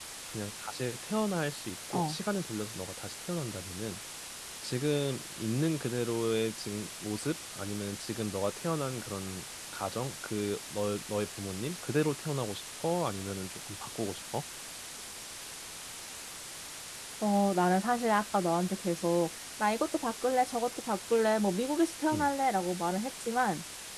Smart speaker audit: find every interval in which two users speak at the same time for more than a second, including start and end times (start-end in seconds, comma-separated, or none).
none